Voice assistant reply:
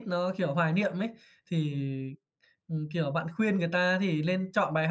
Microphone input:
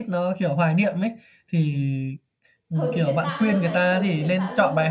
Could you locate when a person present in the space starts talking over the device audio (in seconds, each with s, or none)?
2.7 s